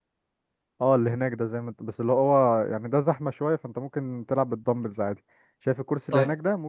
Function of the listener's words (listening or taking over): listening